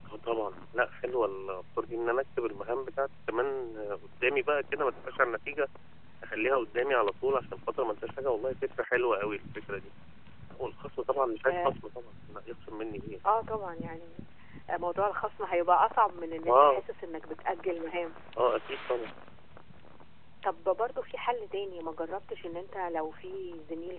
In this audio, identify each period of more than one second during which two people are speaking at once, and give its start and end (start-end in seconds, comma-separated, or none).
none